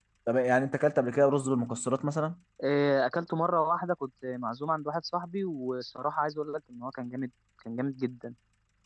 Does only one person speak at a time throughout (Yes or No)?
Yes